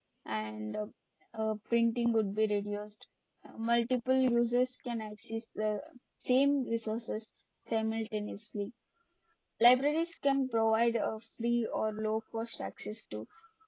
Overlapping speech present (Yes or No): No